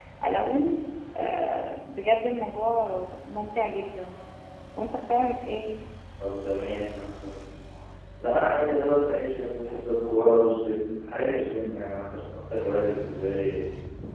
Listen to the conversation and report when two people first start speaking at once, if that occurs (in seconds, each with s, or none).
none